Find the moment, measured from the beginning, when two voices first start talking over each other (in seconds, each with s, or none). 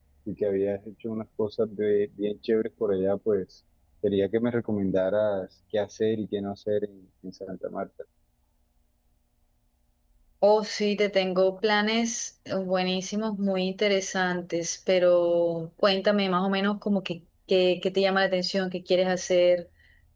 none